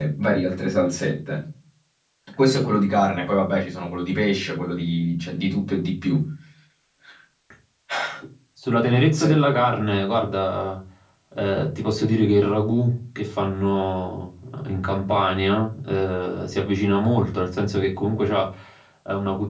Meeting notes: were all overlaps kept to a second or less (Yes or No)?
Yes